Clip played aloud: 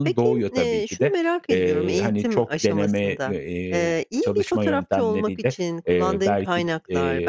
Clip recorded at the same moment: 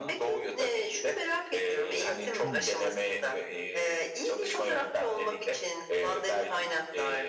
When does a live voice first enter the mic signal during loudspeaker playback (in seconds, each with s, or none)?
2.4 s